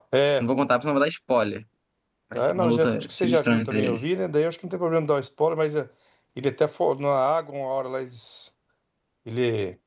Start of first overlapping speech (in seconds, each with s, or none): 2.3 s